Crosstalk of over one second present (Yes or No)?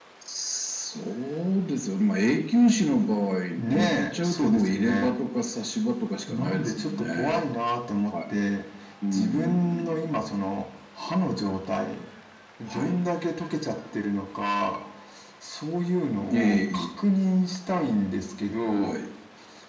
Yes